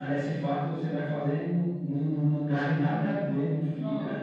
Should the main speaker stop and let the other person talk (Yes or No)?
No